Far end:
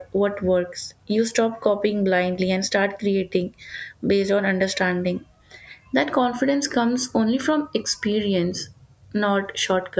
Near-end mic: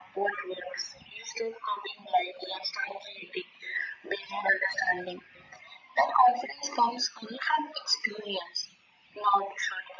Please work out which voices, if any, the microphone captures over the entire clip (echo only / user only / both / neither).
echo only